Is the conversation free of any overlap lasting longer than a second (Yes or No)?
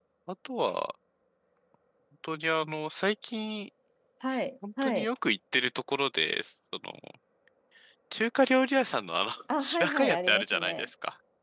No